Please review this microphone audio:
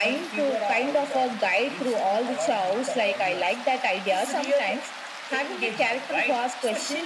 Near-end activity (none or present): none